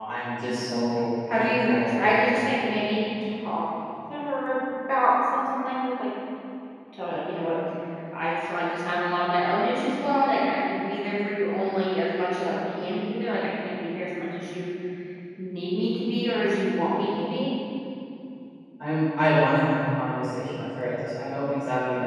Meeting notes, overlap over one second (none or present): present